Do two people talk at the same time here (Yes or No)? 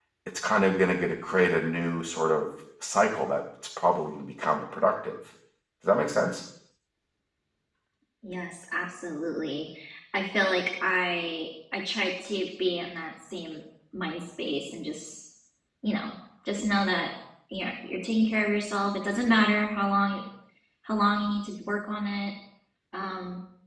No